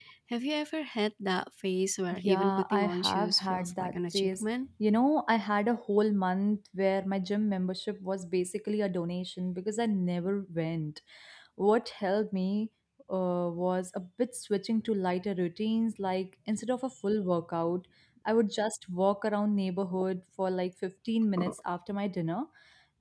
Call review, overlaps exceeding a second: present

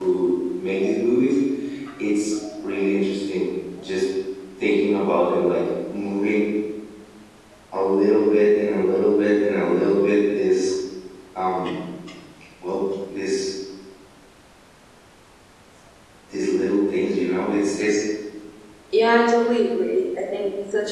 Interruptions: none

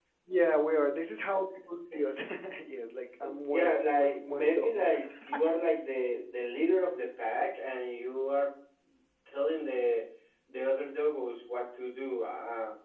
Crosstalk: present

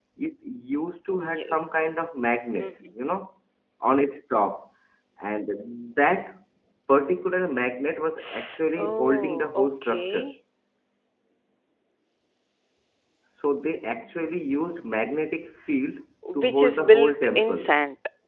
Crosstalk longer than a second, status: present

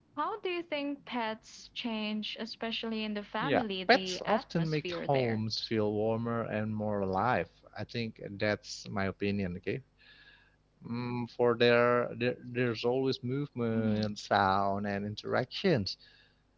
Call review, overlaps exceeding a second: present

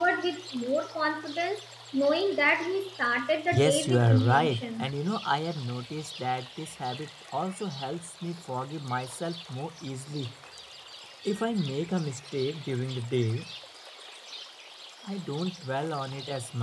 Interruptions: present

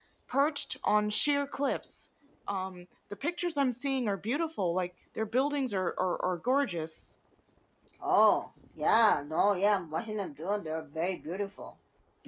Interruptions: none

